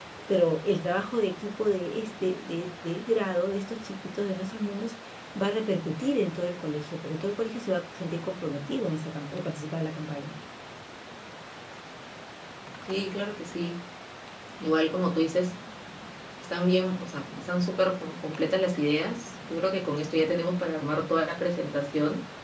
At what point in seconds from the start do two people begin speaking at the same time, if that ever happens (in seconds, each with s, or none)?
none